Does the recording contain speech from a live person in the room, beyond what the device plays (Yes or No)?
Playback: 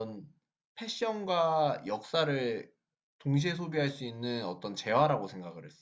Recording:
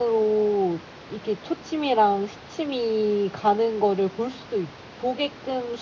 Yes